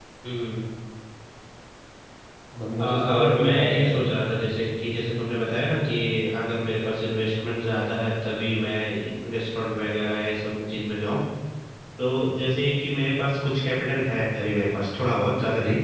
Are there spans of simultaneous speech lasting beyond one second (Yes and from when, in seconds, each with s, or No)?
Yes, from 2.8 s